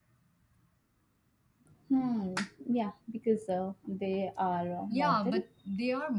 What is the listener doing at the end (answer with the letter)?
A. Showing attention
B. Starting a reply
B